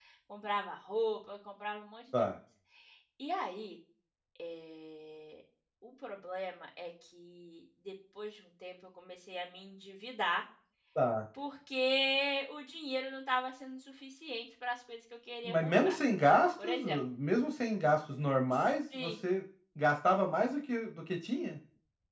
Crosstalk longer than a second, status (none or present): none